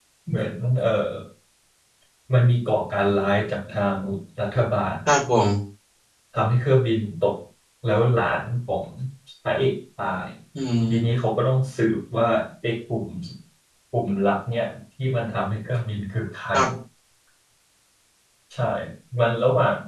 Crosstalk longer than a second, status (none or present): none